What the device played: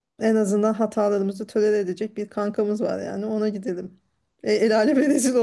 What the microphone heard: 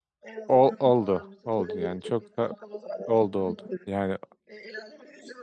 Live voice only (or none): ol- oldu. Oldu yani çok da oldu oldu. Yani